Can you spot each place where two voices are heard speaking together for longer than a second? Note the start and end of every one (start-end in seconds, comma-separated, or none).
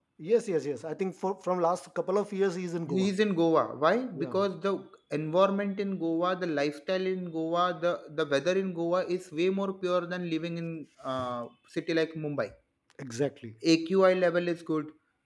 none